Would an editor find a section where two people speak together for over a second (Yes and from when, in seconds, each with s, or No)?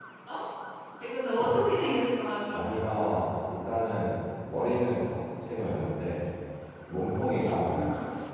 No